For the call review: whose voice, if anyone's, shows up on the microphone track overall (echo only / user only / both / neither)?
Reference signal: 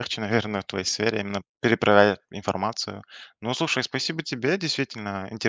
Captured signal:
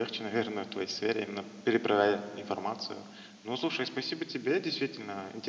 echo only